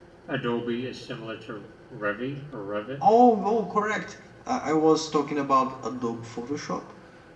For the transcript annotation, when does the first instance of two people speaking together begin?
none

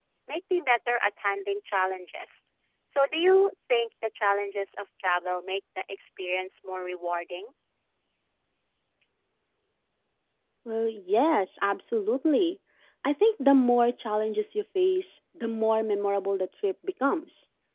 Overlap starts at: none

